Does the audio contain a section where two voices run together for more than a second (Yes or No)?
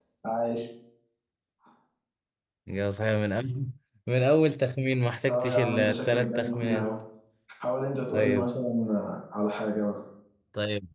Yes